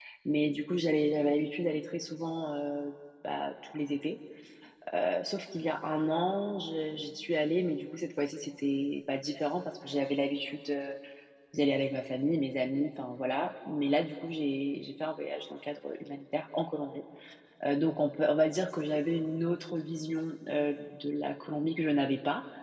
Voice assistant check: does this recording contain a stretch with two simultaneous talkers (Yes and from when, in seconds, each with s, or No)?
No